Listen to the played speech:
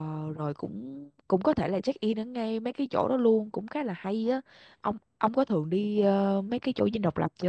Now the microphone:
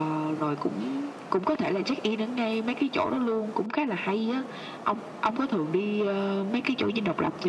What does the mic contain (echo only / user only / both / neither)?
echo only